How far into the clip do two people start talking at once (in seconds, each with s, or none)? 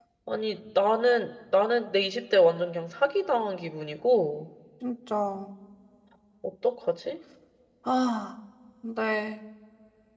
none